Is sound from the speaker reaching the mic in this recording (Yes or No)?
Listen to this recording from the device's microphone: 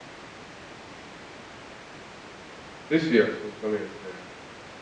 No